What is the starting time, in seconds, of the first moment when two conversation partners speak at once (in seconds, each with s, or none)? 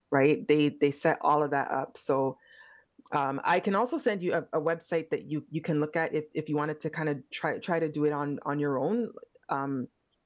none